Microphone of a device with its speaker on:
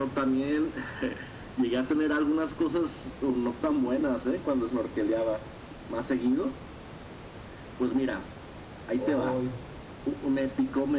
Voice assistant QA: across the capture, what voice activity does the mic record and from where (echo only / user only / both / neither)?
both